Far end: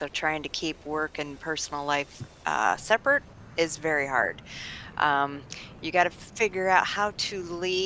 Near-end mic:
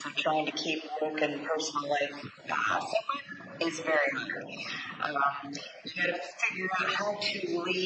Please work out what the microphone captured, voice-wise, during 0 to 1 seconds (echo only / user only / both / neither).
echo only